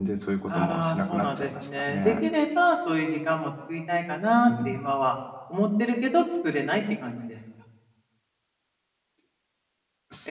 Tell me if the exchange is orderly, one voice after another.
No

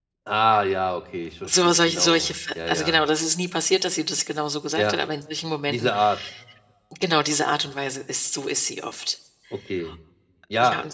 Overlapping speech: Yes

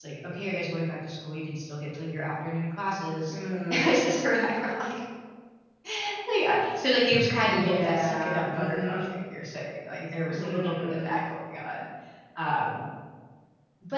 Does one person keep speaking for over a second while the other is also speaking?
Yes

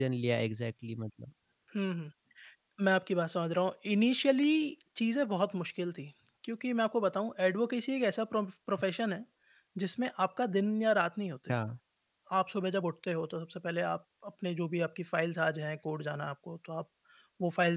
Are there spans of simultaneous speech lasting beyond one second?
No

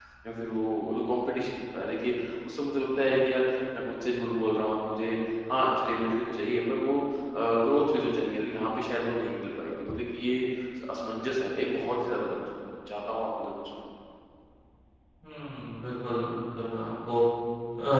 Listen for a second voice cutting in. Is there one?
No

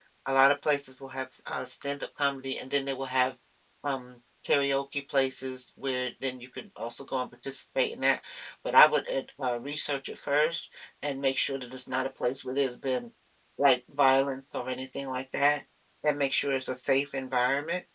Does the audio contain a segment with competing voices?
No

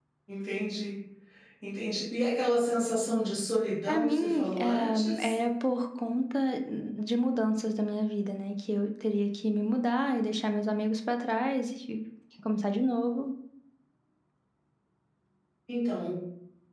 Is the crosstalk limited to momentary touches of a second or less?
No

